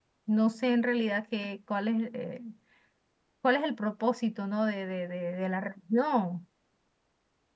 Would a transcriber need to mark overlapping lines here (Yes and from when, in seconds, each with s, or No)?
No